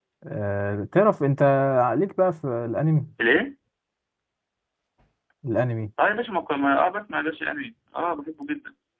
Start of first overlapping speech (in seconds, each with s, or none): none